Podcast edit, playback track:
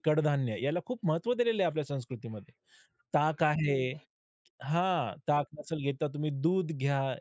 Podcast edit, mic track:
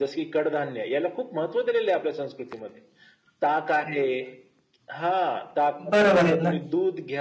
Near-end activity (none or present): present